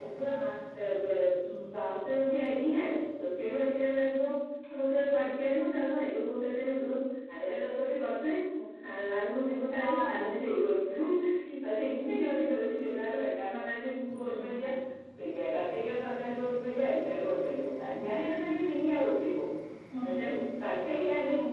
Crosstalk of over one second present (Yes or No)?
No